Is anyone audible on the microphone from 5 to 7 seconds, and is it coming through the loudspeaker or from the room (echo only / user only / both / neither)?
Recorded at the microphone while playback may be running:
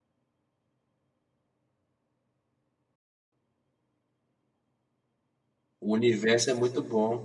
user only